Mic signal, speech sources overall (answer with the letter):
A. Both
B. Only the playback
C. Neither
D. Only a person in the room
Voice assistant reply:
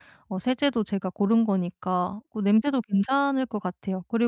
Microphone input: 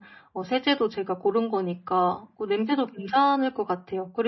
B